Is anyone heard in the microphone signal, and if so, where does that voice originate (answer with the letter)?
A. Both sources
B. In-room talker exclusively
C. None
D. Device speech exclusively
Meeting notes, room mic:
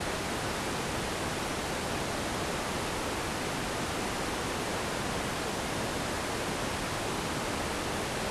C